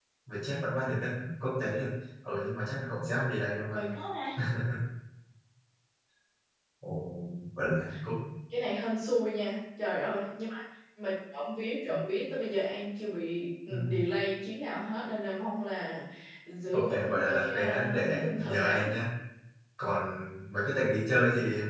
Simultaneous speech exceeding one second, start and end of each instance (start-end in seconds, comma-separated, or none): 16.7-18.9